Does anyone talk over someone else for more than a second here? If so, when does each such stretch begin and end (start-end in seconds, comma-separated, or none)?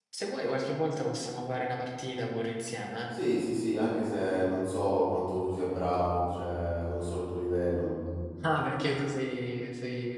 none